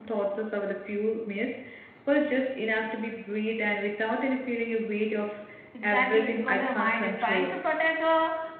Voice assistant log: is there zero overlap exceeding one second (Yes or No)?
No